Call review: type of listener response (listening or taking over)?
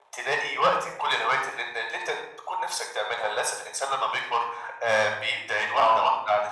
listening